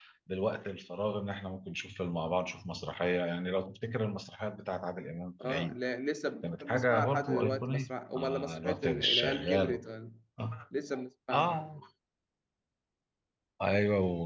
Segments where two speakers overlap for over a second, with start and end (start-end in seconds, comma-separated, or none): 6.4-9.8